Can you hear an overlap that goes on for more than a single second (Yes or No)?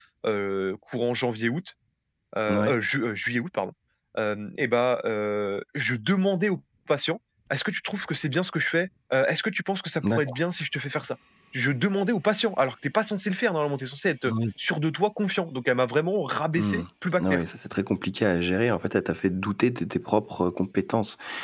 No